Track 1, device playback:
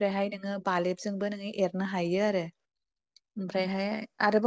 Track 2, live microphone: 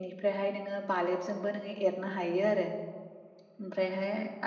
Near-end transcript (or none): none